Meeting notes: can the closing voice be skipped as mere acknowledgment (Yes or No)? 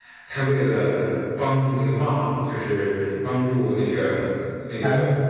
Yes